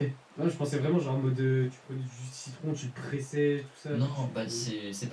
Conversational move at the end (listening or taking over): taking over